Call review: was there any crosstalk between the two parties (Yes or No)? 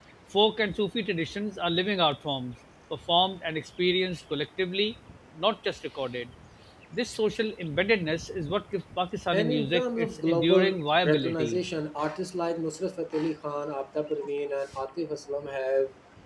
Yes